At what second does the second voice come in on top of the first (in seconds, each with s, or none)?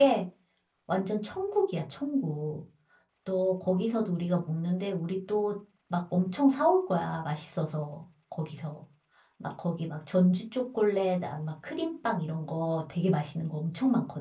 none